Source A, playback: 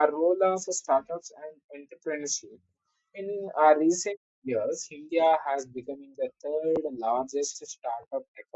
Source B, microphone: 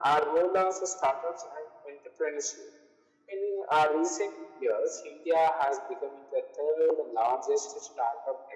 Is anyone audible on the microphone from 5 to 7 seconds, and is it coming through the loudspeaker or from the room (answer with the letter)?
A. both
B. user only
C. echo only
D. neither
C